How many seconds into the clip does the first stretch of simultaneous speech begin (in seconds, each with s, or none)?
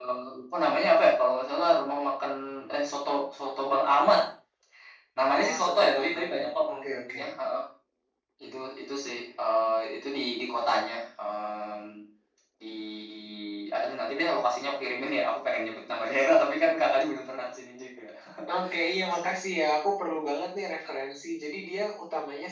5.3 s